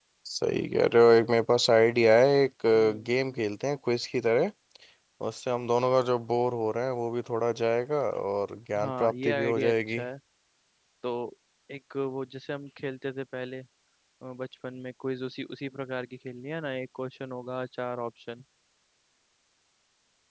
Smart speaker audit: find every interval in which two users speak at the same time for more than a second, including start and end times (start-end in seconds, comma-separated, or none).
8.8-10.0